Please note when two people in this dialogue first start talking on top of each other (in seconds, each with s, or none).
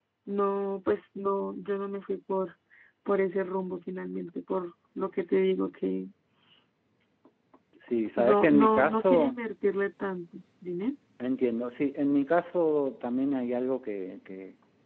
8.2 s